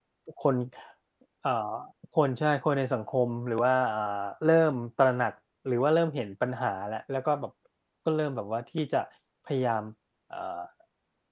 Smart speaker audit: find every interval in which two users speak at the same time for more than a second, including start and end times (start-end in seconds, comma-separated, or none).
none